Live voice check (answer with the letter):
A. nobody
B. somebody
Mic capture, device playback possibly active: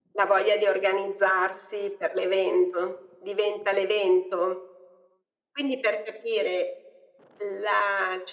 A